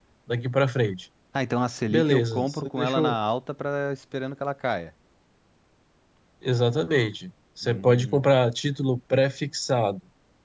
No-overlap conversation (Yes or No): No